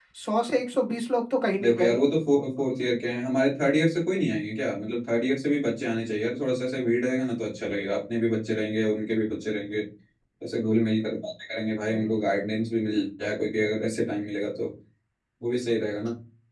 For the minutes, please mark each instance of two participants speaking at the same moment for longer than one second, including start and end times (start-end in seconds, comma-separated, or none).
none